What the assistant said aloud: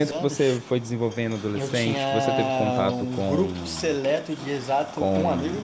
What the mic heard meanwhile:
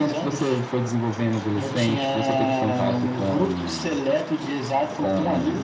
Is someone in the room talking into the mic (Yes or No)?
No